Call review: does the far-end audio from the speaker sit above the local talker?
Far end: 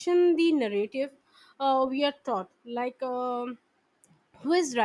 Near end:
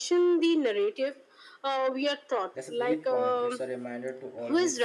Yes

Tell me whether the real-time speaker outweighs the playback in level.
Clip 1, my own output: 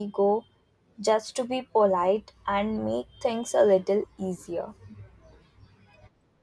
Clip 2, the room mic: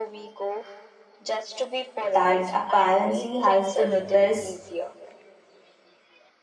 Yes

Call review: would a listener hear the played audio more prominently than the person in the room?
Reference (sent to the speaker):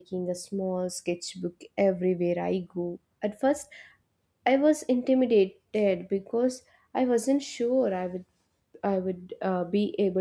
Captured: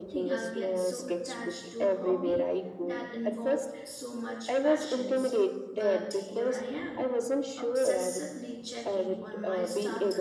Yes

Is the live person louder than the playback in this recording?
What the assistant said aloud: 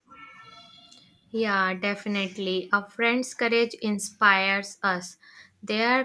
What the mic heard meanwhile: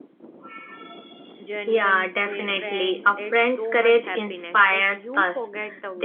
No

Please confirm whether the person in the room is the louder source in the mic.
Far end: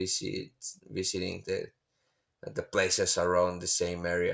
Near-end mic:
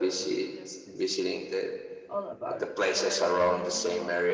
No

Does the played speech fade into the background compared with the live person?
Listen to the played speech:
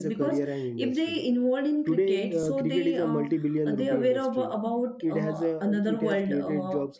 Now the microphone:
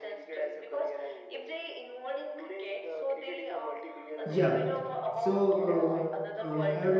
Yes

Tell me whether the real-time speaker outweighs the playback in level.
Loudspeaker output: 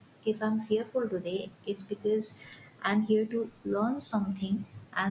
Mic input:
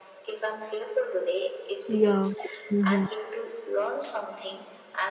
Yes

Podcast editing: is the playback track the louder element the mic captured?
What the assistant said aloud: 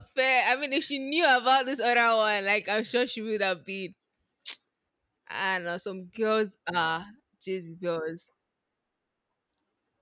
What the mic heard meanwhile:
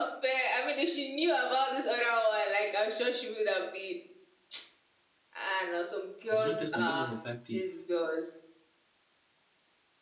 Yes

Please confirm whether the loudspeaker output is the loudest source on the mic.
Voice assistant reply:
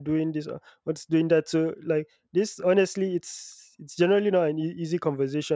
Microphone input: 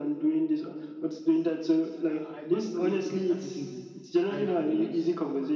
Yes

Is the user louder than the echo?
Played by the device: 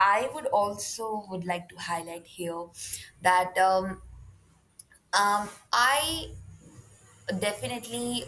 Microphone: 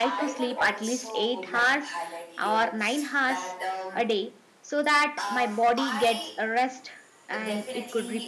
Yes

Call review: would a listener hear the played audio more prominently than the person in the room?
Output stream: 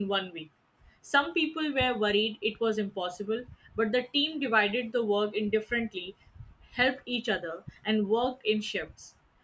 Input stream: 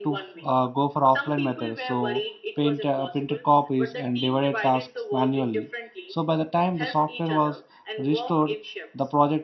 No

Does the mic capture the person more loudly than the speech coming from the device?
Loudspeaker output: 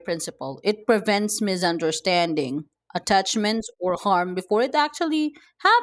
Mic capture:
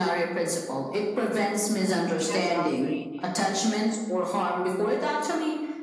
No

